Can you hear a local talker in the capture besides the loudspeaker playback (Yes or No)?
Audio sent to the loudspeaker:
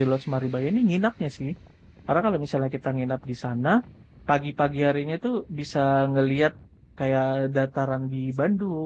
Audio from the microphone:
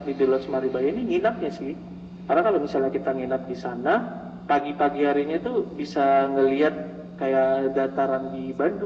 No